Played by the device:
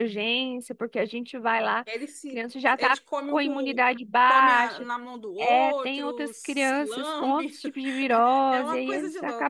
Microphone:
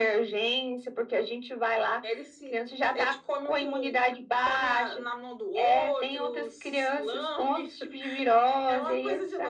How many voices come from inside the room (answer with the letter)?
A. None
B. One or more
A